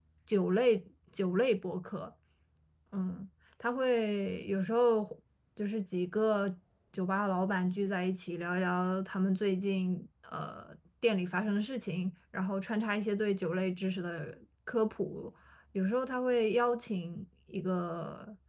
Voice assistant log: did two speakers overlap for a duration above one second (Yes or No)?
No